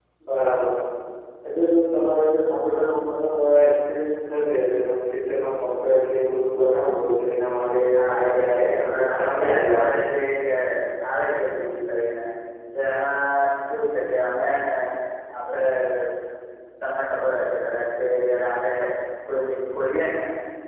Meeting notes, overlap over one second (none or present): present